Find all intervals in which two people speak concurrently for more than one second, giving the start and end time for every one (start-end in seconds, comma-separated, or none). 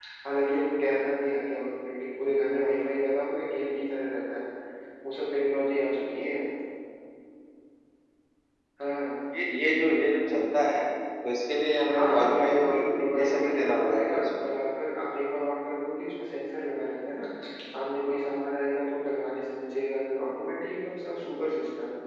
11.9-14.5